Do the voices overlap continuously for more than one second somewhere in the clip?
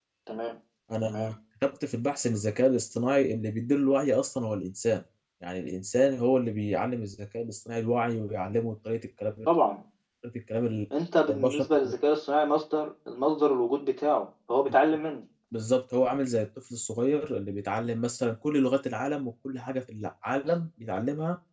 No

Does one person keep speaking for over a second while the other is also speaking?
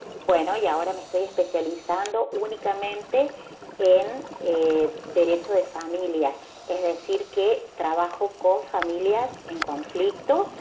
No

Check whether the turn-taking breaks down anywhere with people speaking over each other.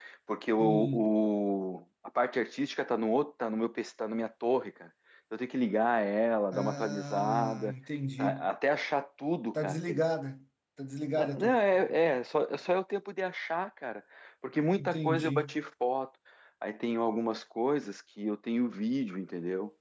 Yes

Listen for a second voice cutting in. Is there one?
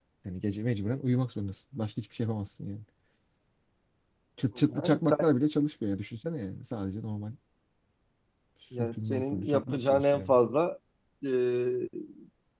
Yes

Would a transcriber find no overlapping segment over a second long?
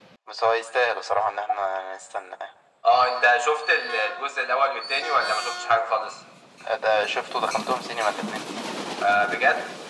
Yes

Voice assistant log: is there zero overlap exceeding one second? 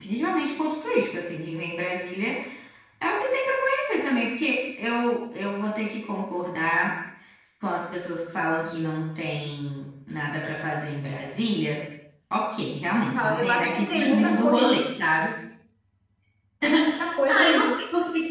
No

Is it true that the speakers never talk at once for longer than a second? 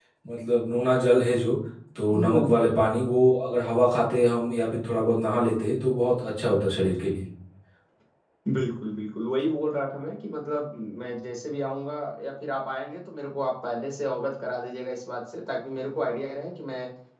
Yes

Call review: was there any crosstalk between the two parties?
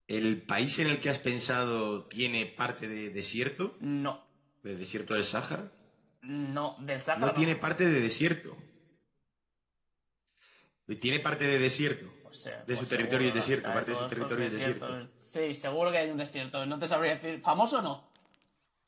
Yes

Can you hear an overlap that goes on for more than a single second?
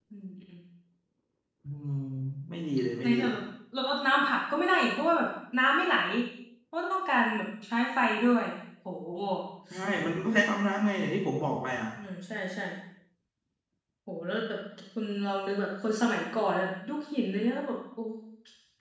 No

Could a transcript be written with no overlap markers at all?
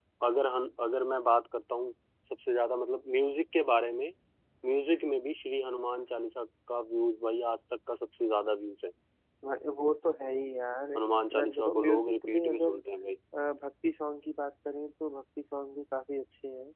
No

